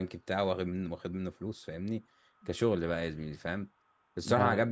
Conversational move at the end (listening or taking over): listening